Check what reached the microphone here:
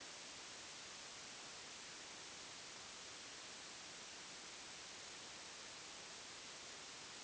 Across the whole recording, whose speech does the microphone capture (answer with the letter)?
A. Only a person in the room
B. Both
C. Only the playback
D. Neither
D